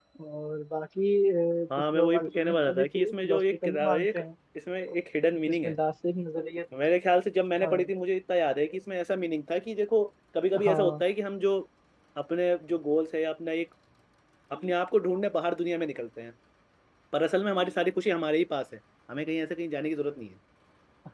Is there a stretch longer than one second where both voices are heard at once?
Yes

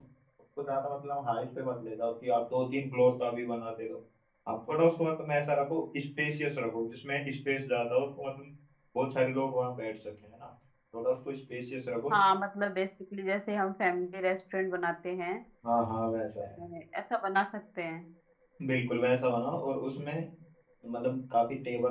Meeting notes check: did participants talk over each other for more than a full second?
No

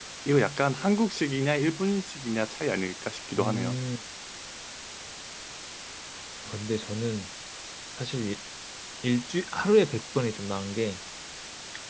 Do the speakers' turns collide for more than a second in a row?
No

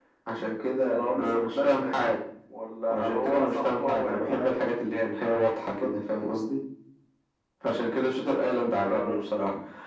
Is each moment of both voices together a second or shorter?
No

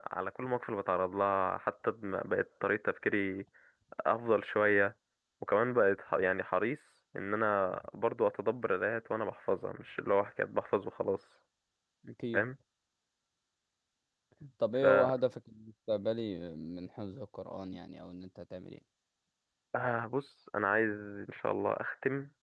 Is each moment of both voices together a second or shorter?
Yes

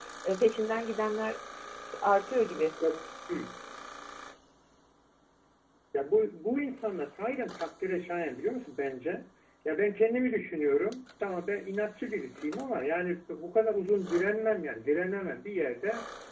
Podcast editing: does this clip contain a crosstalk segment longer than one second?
No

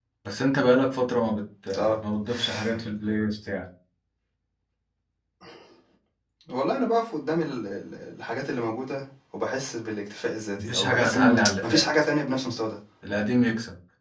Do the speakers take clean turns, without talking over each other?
No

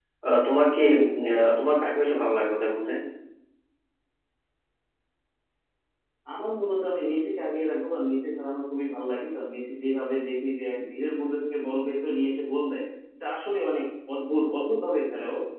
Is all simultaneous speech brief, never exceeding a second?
Yes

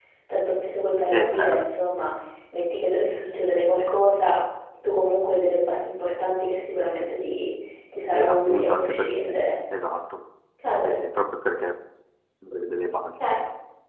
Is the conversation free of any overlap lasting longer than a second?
No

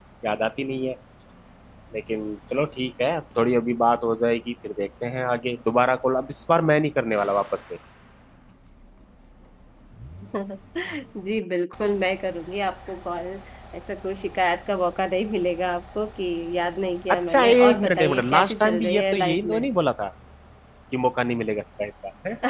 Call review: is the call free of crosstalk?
No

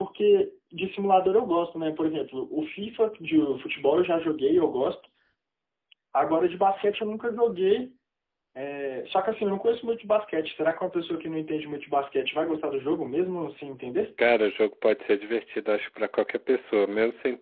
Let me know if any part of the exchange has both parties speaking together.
No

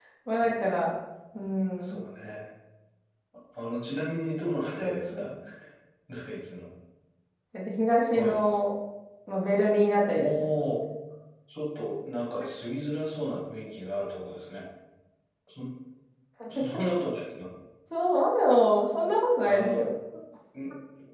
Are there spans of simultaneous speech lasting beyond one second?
No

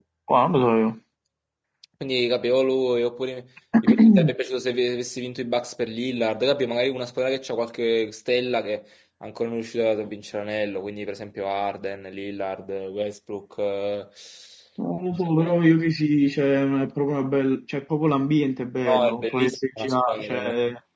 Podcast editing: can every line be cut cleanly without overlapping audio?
No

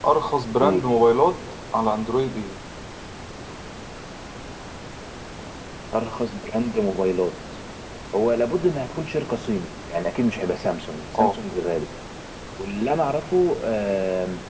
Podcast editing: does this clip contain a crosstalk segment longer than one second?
No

